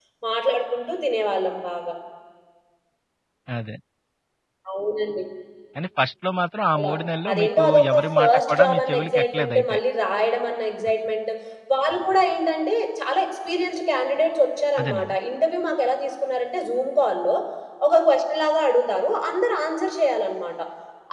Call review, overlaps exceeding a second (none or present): present